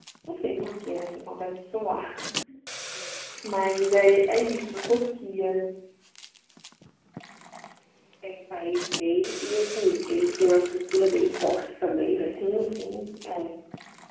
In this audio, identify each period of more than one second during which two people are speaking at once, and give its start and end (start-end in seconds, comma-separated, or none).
none